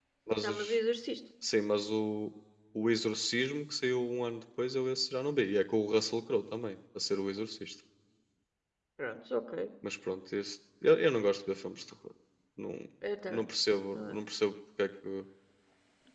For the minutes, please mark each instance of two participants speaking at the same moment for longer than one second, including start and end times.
none

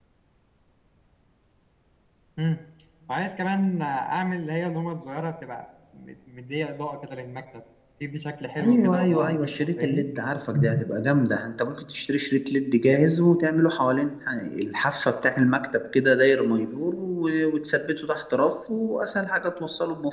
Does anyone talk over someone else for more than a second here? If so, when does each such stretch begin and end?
8.6-10.1

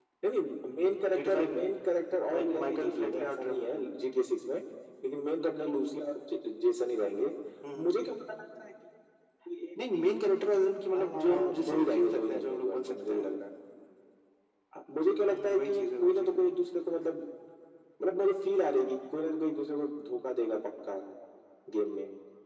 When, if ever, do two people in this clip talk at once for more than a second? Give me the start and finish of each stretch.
2.3-3.6, 10.9-13.3, 15.2-16.4

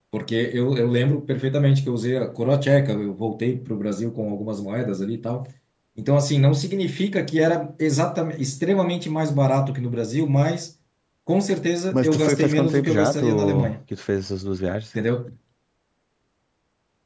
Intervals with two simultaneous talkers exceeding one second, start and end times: 11.9-13.7

